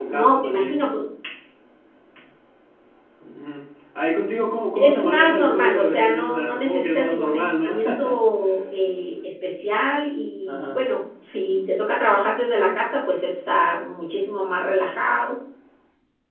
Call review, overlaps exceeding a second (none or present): present